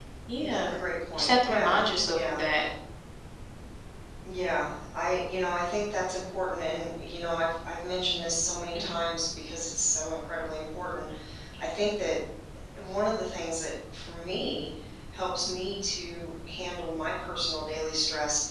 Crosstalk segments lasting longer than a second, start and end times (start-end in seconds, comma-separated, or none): 1.1-2.4